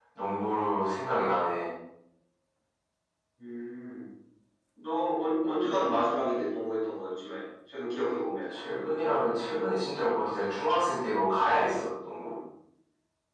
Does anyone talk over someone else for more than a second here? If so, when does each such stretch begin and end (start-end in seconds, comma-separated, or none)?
none